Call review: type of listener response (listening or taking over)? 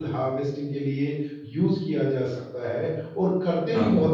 listening